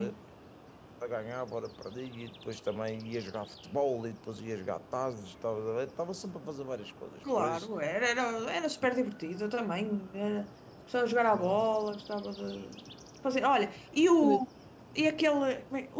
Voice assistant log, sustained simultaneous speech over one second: none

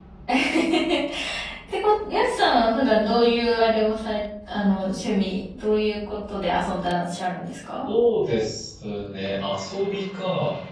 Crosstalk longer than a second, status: none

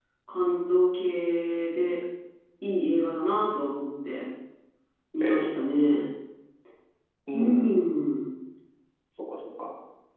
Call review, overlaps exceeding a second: none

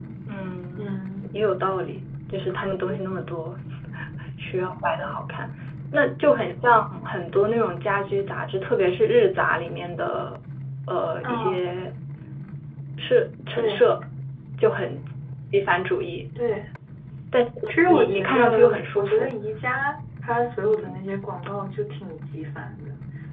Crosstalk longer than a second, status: present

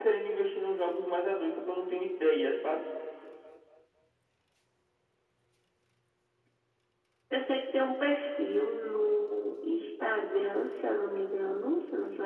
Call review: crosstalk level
none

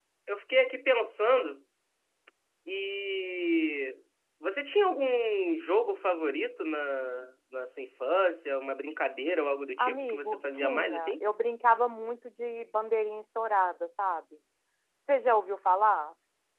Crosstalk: present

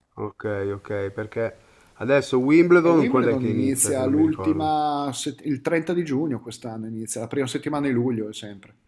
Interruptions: present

